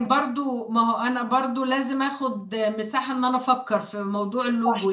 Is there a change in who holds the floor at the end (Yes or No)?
Yes